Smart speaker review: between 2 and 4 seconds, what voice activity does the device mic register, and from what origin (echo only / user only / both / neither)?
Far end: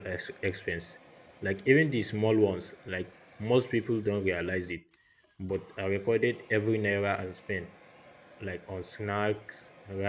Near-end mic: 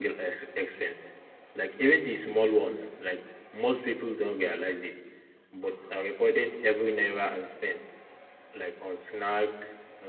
echo only